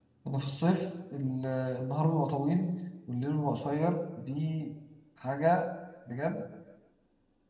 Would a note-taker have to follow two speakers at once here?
No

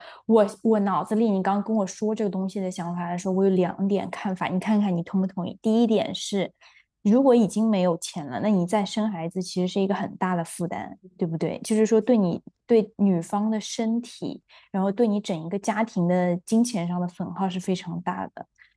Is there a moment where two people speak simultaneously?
No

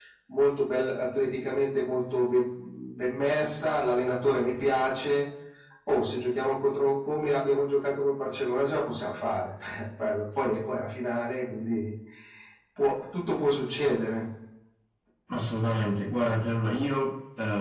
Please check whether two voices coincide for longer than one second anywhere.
No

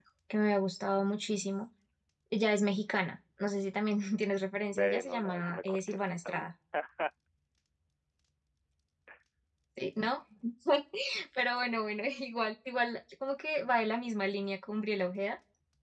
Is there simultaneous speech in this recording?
Yes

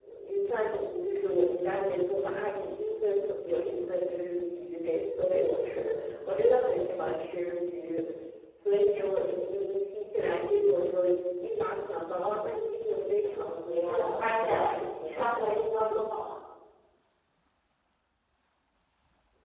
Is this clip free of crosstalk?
No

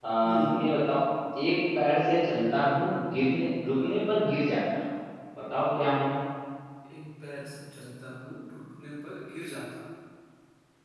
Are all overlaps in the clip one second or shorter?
Yes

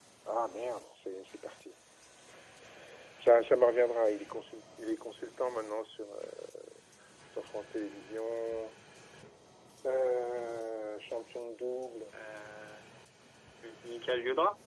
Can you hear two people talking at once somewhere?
No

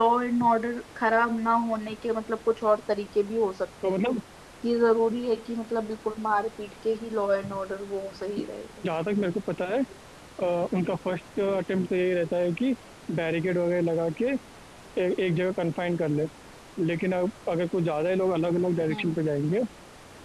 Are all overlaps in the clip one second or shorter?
Yes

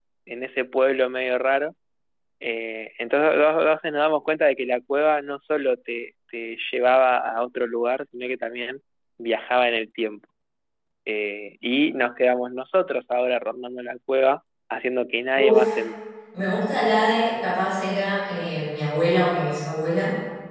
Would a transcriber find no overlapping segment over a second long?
Yes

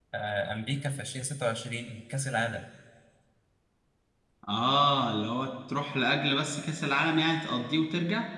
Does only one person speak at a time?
Yes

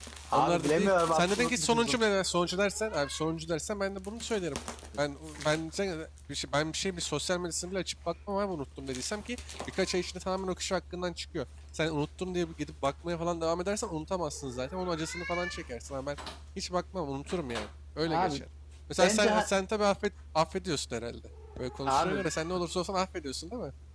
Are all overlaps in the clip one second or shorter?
No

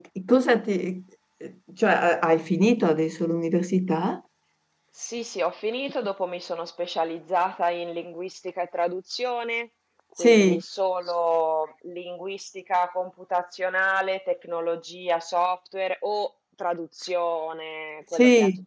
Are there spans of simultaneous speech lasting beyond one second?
No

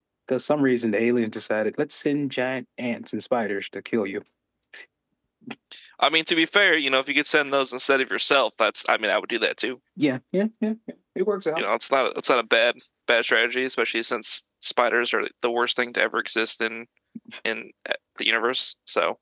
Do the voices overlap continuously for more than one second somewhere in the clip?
No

